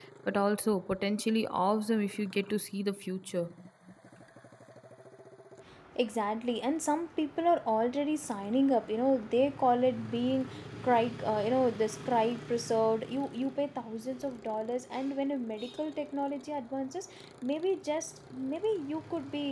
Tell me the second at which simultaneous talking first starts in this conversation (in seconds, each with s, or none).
none